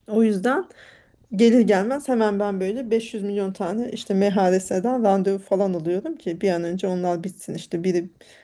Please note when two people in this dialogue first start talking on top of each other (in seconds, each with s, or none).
none